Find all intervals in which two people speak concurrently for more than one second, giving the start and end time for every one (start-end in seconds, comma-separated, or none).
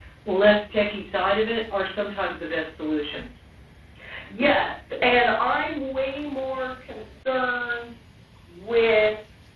none